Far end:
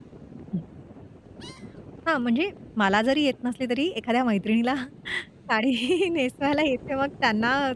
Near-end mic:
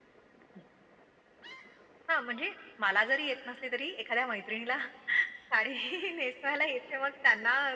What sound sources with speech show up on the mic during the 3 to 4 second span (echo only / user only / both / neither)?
echo only